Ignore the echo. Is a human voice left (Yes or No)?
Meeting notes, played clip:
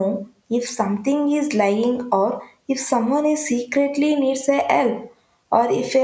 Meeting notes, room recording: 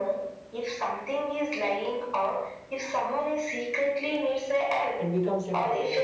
Yes